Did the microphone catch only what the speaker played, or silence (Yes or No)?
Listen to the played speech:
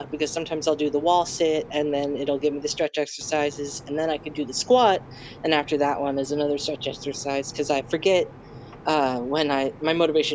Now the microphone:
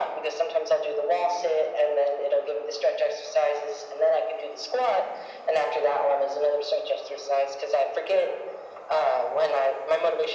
Yes